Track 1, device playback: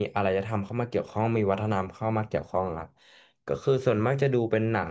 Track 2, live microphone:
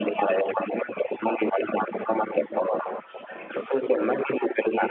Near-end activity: none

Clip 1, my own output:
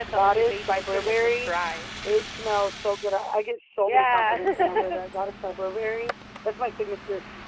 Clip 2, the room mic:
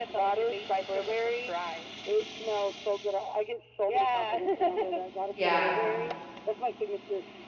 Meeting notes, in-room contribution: present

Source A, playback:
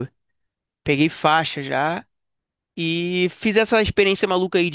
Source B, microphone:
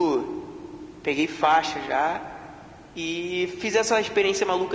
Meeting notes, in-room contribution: none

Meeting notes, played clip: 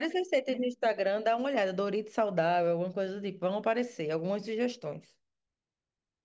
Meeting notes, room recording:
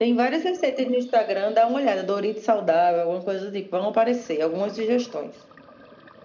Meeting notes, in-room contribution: none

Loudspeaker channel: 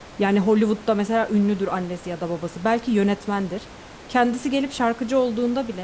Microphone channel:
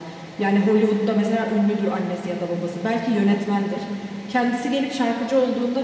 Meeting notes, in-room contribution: none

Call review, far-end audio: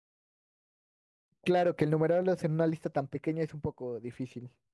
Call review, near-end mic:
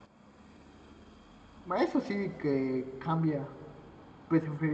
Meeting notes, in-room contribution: present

